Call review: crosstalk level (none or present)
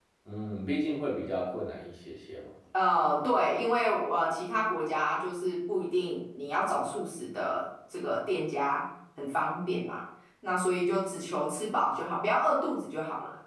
none